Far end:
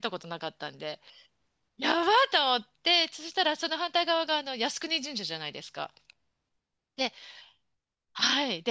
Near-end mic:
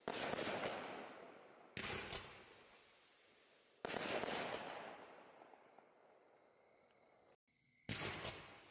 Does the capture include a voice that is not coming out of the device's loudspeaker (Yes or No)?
No